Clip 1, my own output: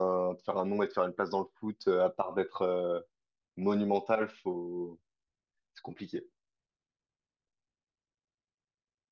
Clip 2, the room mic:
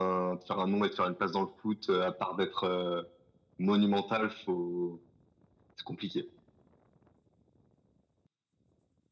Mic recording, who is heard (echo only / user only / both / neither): echo only